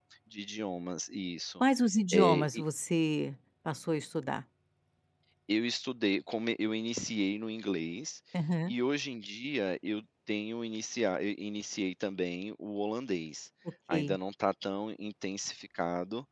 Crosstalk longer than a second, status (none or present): none